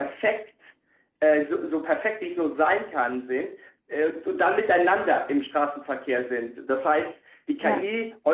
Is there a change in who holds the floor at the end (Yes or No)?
No